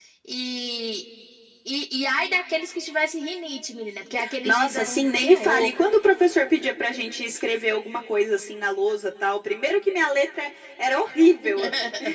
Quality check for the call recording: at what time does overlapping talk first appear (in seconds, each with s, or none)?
4.4 s